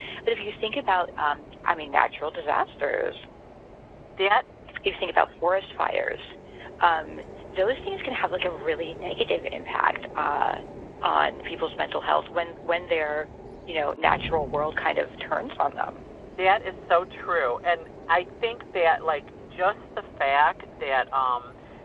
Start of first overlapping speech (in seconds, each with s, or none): none